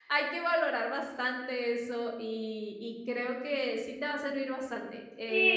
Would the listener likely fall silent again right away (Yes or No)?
No